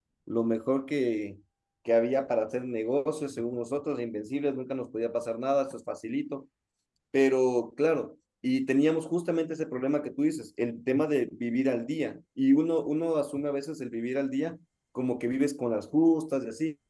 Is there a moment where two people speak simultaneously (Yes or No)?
No